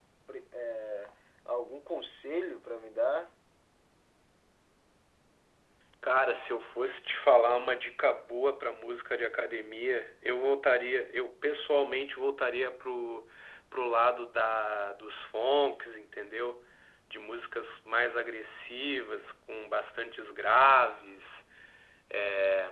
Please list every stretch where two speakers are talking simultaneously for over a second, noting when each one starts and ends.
none

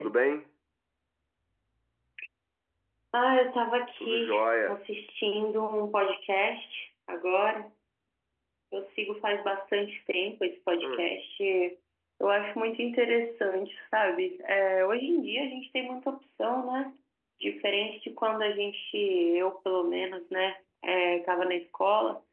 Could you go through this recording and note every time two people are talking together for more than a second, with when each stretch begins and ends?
none

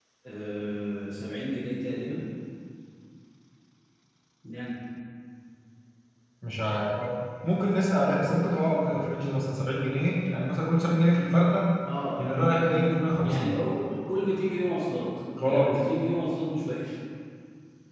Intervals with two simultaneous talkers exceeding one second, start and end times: none

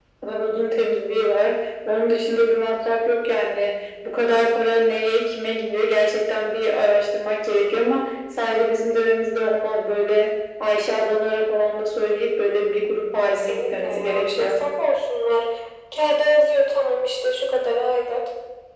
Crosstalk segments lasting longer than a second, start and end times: 13.3-14.5

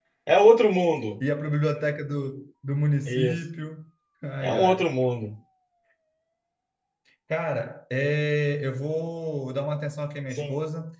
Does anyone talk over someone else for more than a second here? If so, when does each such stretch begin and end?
none

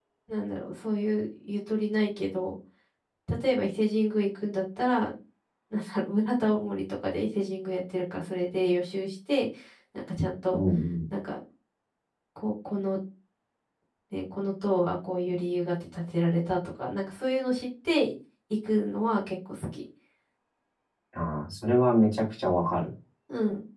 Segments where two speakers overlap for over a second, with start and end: none

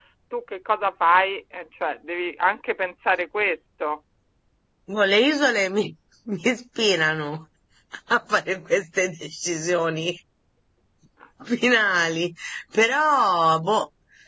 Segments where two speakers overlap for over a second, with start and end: none

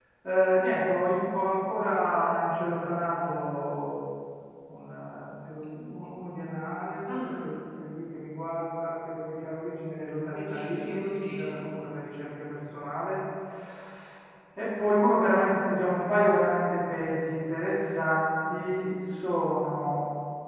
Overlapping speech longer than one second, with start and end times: 10.3-11.5

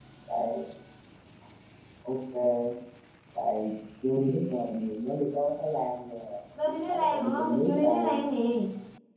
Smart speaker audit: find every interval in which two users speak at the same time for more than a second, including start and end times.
6.8-8.2

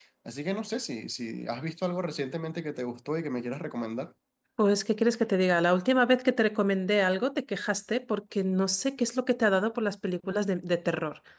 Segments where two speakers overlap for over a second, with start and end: none

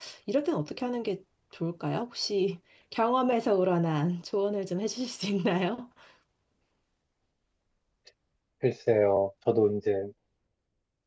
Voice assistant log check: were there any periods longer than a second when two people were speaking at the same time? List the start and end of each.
none

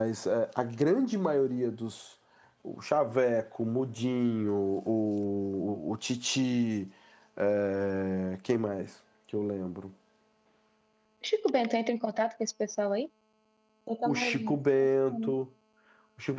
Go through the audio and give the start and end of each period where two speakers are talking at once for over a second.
14.1-15.3

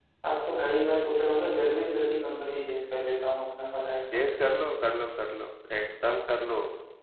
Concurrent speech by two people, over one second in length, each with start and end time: none

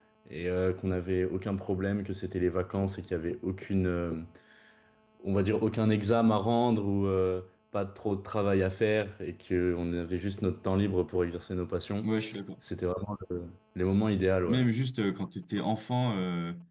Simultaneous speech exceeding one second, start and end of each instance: none

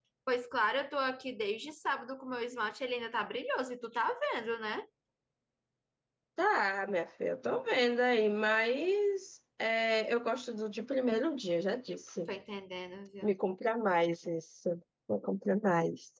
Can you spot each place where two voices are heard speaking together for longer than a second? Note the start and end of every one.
none

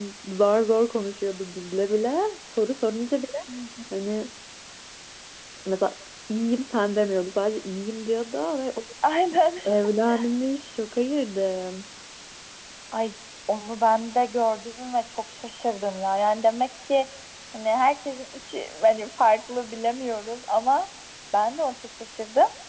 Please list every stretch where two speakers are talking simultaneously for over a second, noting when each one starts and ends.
none

